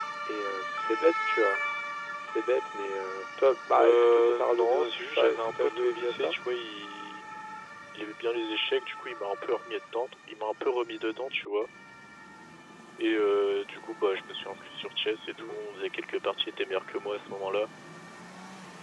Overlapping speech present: Yes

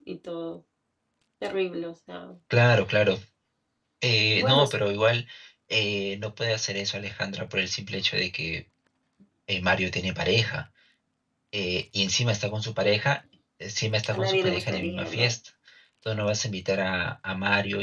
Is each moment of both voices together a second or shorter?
No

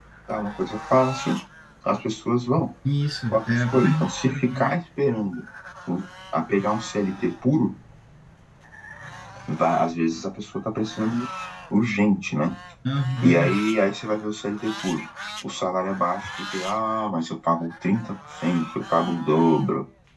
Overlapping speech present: Yes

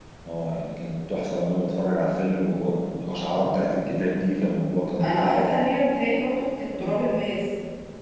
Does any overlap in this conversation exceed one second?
No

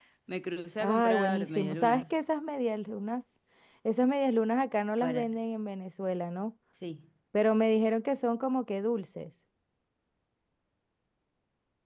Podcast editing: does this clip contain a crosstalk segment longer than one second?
Yes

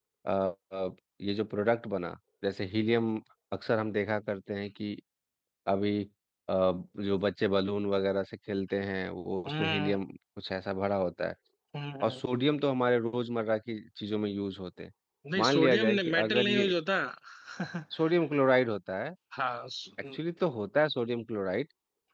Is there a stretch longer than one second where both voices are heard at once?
Yes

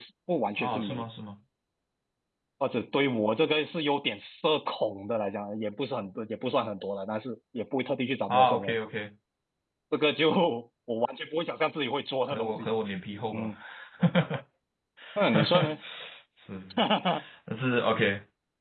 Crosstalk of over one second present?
No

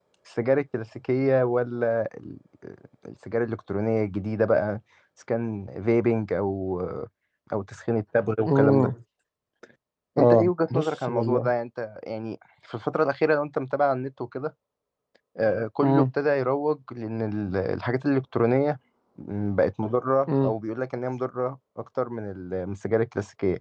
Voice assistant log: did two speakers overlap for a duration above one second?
Yes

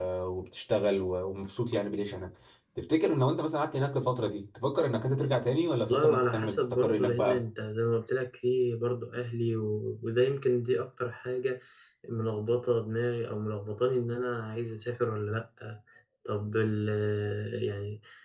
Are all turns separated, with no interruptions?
No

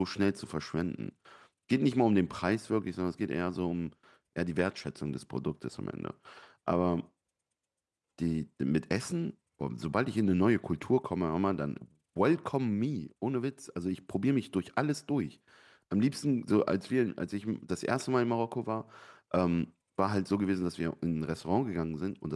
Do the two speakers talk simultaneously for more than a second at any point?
No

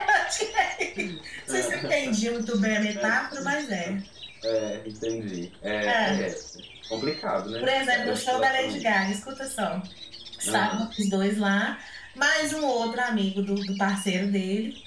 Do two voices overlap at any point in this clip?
Yes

